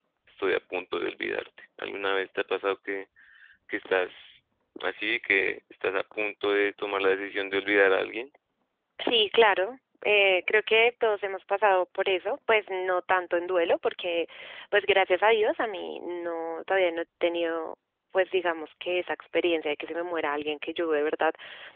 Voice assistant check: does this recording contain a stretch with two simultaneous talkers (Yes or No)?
No